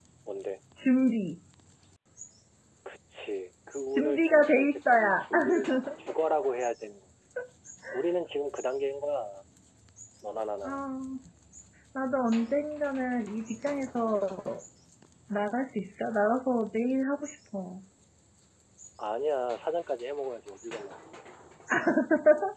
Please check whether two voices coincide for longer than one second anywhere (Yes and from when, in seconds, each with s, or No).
Yes, from 3.9 s